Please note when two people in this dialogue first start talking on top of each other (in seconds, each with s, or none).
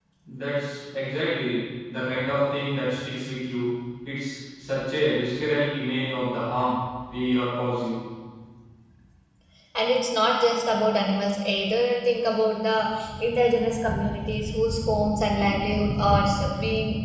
none